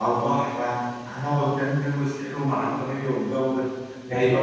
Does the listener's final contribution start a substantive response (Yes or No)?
No